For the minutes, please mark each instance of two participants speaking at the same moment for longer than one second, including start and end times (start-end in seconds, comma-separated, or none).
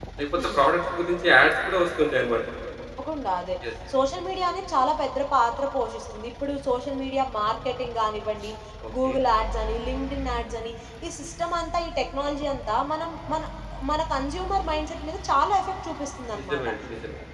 none